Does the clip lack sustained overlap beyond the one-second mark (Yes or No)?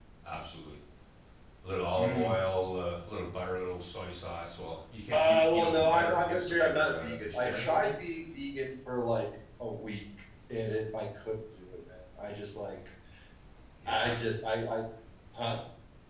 No